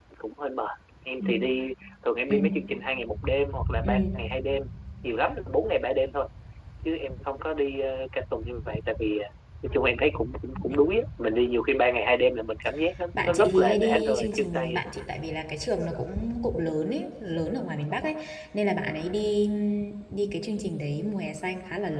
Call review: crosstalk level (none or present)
present